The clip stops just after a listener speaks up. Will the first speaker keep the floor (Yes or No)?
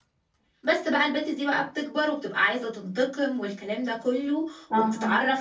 Yes